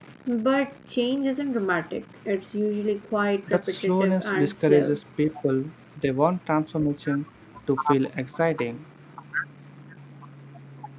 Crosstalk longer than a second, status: present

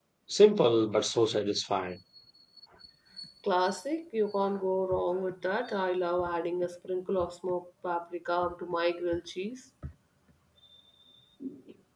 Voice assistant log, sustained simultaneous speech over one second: none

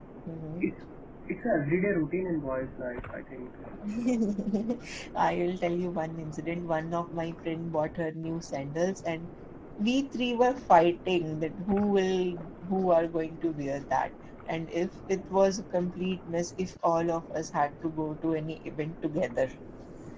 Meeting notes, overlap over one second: none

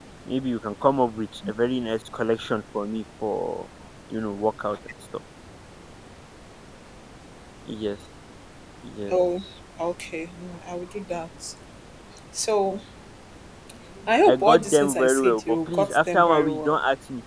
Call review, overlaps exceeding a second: present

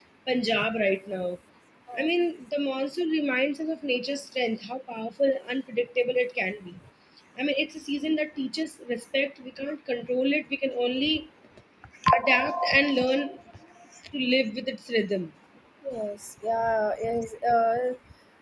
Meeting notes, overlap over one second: none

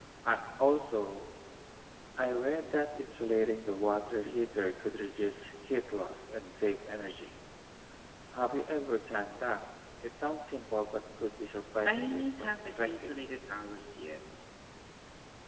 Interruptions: present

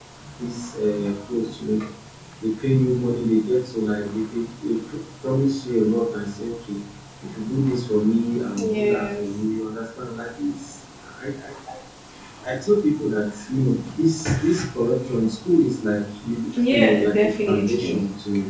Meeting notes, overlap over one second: present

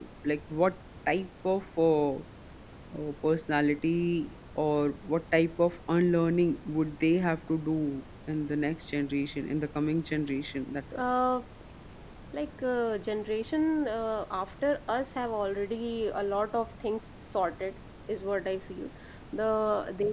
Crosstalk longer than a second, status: none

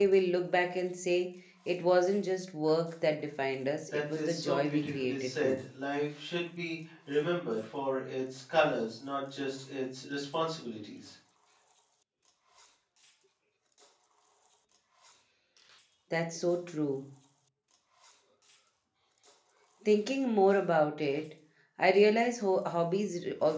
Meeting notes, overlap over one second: present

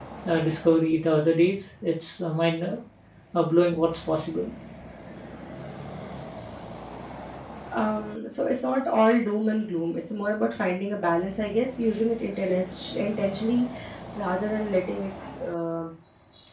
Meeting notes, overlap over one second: none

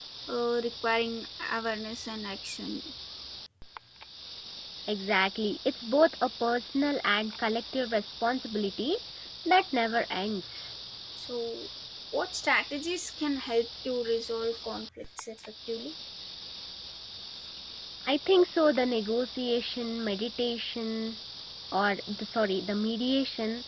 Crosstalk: none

